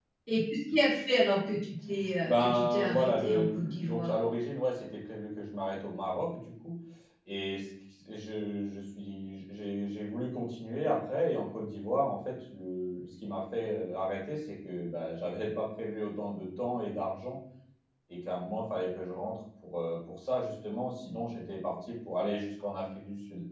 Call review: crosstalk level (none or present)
present